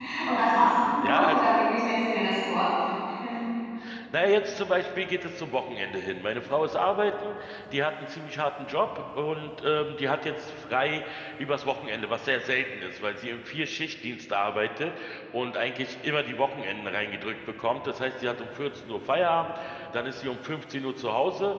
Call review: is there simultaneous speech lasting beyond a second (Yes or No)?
No